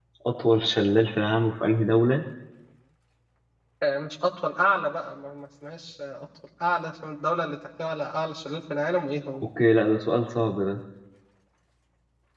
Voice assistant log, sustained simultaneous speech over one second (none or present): none